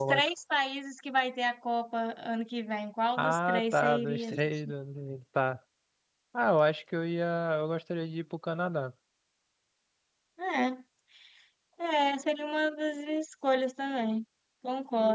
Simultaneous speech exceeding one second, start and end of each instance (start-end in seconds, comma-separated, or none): 3.2-4.7